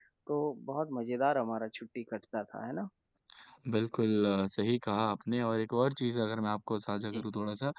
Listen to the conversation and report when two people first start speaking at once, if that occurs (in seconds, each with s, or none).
none